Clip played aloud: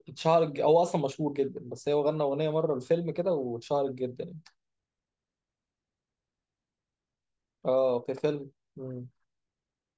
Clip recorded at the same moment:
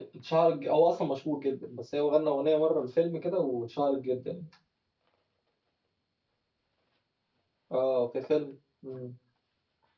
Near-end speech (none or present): none